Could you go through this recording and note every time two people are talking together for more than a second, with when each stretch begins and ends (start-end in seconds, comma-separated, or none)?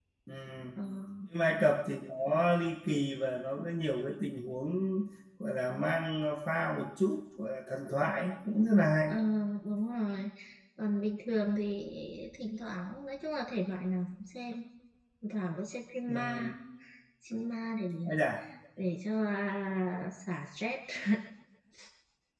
none